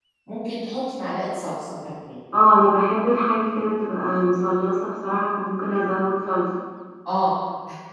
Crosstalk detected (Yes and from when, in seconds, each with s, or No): No